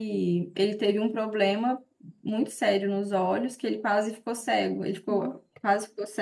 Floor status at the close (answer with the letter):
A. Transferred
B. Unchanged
B